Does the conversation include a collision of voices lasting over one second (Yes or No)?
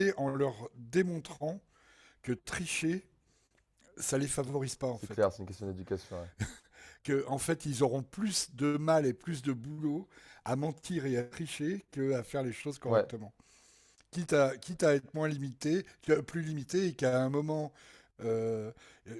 No